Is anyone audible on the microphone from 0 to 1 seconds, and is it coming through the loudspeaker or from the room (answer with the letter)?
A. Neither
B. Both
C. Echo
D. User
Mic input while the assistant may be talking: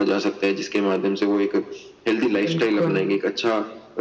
C